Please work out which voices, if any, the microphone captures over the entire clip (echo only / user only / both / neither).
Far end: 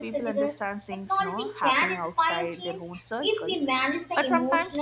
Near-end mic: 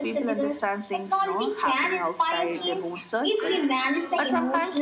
both